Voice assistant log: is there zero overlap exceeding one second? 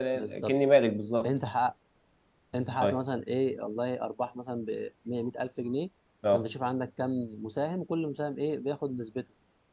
Yes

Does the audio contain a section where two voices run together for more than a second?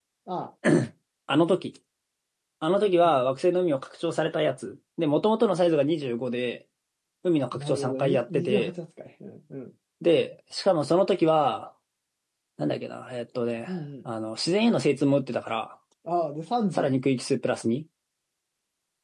Yes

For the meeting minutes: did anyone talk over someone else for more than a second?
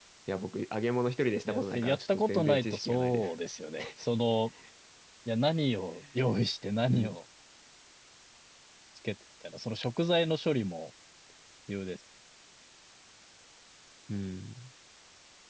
Yes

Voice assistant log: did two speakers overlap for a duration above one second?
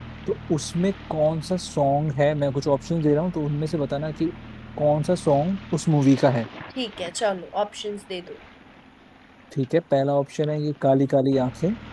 No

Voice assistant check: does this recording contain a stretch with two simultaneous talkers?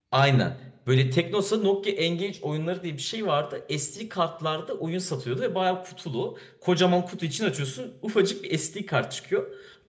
No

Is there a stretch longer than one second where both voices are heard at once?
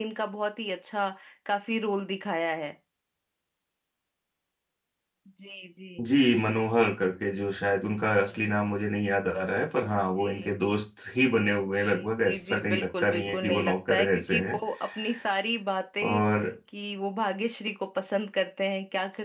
Yes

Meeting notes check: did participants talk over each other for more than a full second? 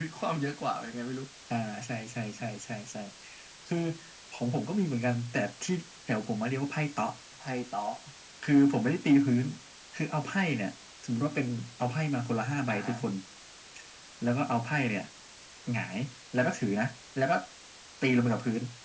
No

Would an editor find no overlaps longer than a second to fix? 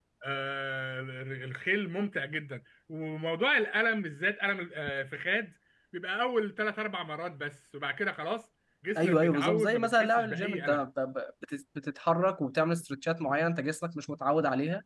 No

